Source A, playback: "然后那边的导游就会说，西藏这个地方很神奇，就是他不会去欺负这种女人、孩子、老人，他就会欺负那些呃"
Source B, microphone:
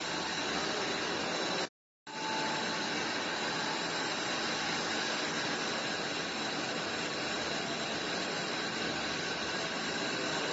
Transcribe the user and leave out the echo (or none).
none